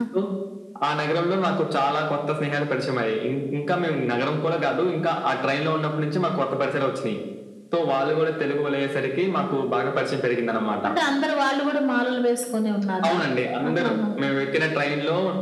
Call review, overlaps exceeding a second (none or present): none